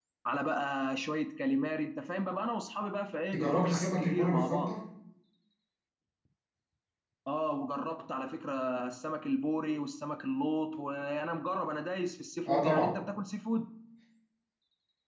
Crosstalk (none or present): present